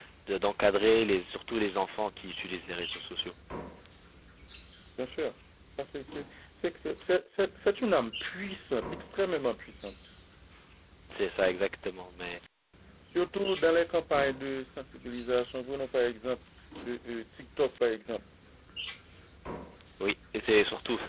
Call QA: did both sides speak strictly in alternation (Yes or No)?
Yes